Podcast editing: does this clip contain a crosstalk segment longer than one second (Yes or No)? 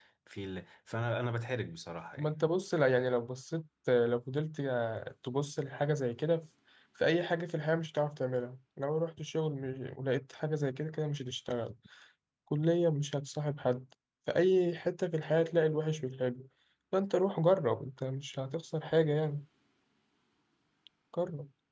No